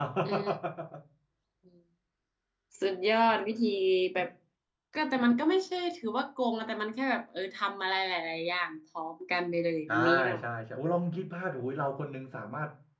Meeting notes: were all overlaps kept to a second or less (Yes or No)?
Yes